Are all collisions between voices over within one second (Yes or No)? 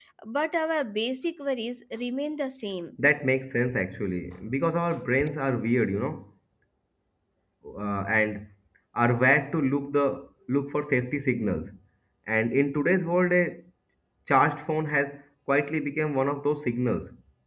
Yes